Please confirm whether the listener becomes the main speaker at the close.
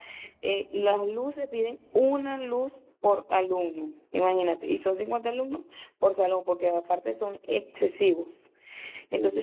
No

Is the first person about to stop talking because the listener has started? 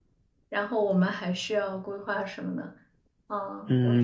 Yes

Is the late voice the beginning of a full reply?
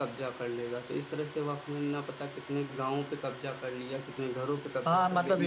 Yes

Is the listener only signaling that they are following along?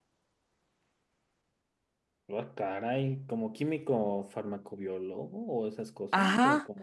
No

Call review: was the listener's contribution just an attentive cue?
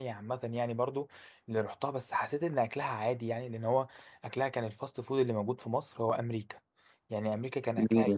Yes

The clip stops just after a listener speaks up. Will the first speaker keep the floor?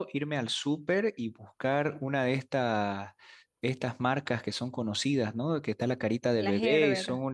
Yes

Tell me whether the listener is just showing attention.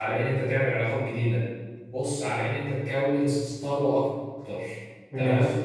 Yes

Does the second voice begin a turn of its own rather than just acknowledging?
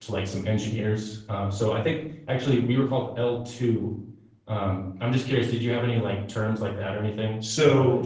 Yes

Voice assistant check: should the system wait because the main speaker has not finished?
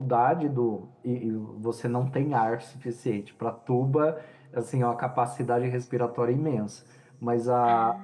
Yes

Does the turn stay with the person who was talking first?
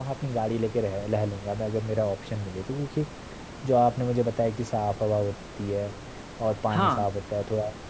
Yes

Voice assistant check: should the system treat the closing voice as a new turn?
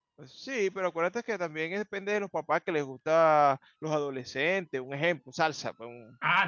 Yes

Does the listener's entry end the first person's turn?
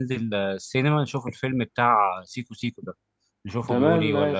Yes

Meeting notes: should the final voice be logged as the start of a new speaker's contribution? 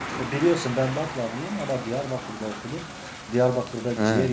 No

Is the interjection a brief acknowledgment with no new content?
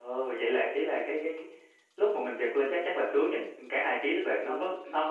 Yes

